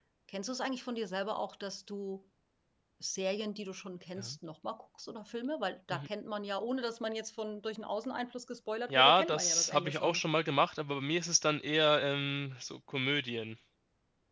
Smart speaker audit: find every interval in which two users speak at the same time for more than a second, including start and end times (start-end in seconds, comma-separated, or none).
8.9-10.2